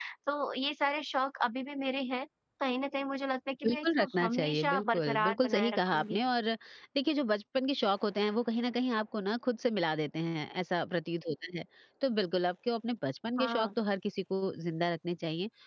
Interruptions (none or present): present